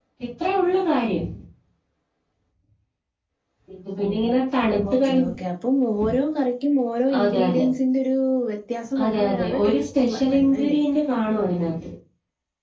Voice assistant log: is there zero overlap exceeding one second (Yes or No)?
No